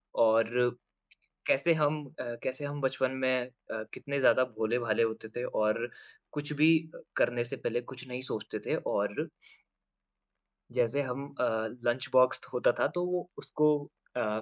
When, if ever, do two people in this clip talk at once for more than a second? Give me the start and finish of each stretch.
none

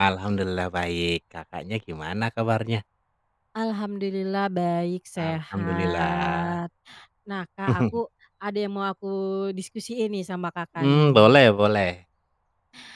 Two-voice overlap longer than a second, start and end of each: 5.3-6.6

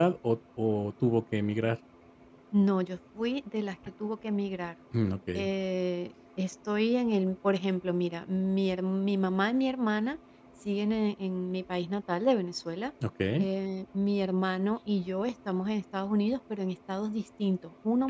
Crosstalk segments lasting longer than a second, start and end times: none

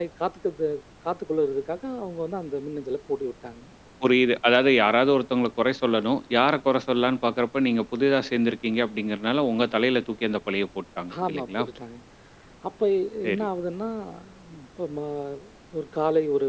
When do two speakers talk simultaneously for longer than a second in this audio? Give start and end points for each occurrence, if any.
none

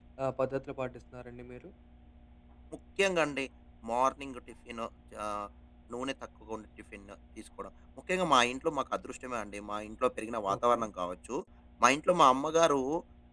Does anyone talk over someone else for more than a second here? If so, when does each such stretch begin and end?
none

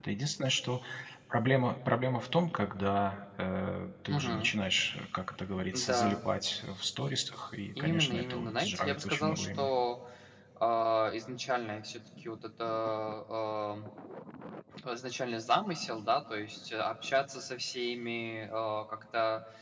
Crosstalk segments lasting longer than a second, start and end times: 7.8-9.7

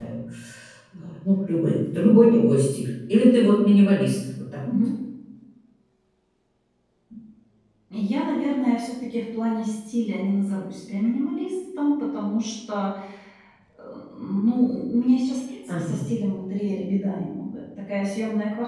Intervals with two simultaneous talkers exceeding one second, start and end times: none

